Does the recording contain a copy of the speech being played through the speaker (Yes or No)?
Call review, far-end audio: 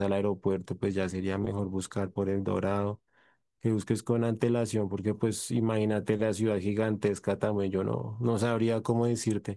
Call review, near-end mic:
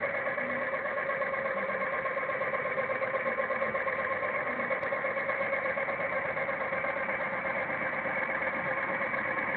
No